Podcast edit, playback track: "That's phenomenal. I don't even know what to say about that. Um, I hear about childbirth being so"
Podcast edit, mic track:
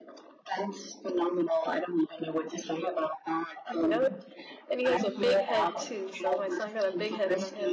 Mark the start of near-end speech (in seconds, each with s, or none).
3.7 s